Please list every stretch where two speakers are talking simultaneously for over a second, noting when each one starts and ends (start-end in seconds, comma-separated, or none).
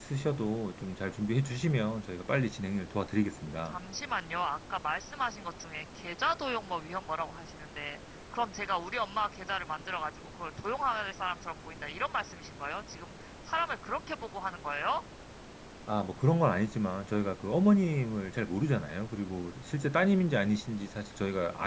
none